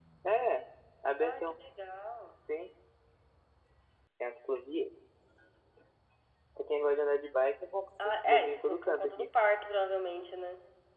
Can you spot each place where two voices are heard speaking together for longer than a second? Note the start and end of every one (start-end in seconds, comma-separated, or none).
8.0-9.3